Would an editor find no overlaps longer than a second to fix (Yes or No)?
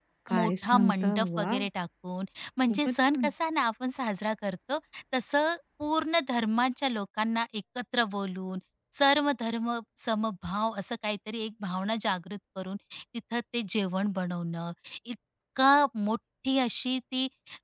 No